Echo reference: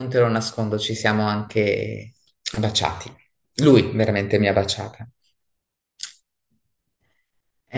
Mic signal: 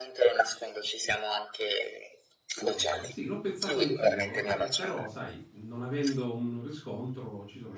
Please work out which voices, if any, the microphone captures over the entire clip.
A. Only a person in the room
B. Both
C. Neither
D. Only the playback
B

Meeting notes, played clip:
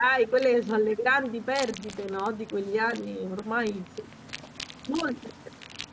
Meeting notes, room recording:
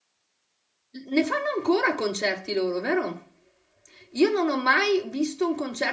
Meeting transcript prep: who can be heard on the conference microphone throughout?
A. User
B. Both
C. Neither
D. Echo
A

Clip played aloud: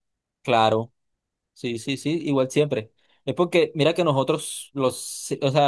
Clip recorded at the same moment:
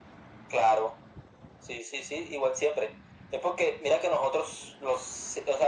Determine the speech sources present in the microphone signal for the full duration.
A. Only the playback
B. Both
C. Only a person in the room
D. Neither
A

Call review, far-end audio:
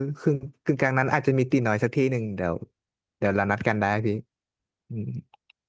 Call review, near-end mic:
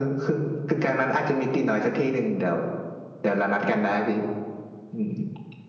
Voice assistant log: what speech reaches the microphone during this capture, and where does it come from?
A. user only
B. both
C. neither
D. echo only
D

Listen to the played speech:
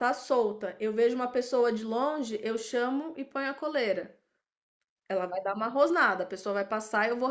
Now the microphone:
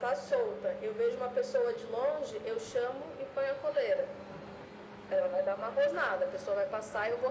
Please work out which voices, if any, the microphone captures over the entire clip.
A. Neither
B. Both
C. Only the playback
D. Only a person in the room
C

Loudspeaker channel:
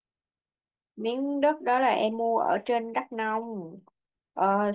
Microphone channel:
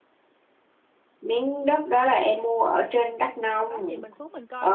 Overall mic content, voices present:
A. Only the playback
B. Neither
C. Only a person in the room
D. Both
D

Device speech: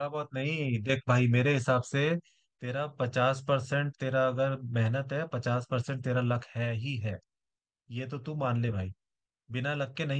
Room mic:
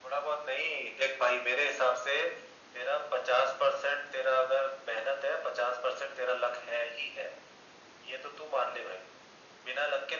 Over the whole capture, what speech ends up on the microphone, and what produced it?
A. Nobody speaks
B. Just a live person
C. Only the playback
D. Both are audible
C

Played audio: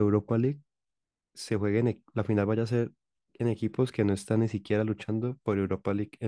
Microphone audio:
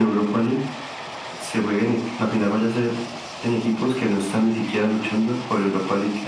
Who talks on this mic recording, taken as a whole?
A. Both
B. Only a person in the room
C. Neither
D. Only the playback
D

